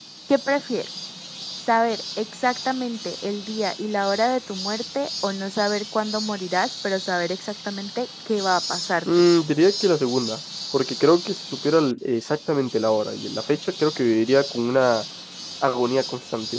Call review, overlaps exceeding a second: none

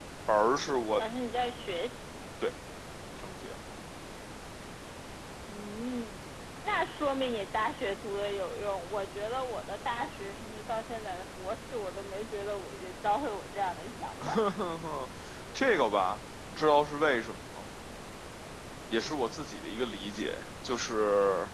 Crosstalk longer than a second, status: none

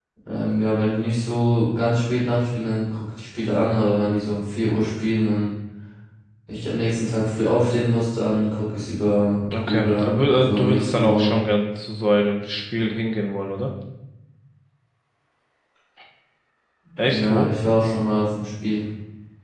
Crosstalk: present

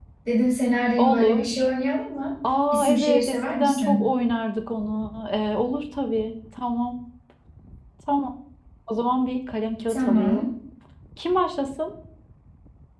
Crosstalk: present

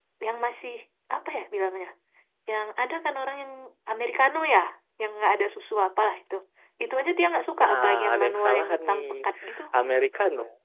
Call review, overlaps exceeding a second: present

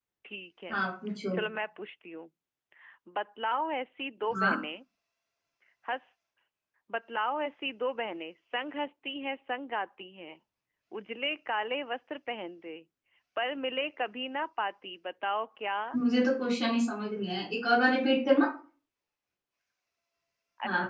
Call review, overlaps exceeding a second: none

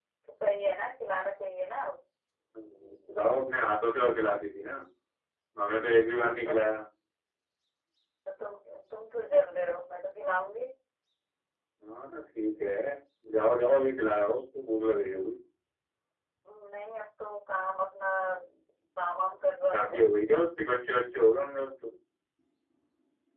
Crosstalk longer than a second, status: none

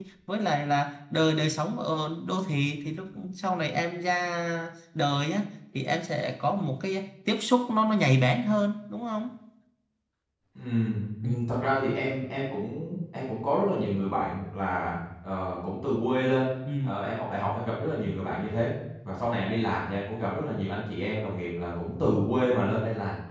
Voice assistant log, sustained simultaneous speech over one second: none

